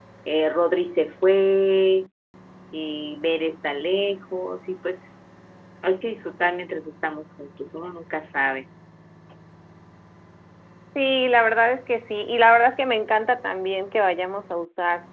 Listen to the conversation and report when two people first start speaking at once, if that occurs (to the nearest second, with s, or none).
none